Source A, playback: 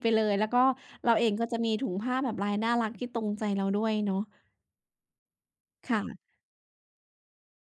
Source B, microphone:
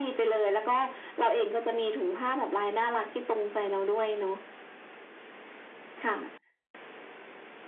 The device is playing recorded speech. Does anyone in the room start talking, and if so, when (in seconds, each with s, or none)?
none